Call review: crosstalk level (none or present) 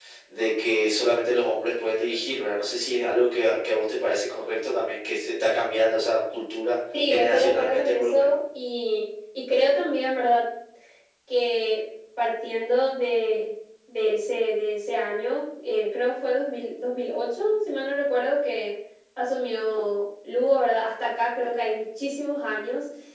present